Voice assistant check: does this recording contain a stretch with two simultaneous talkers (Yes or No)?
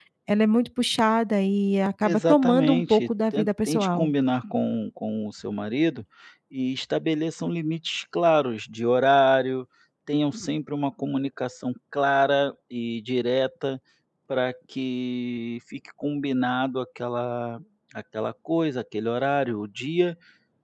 Yes